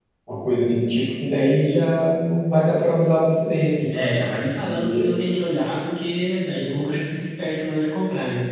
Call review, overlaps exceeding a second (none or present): none